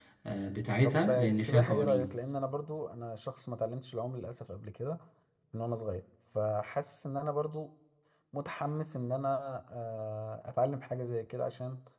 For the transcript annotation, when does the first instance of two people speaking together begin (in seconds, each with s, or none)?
0.8 s